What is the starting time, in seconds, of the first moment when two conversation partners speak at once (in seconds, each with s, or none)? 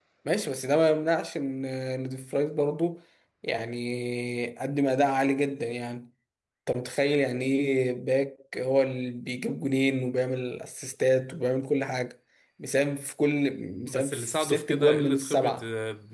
13.9 s